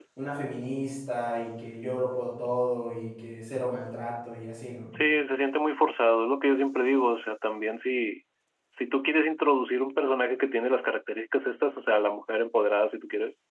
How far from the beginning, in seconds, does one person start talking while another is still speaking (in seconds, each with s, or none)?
none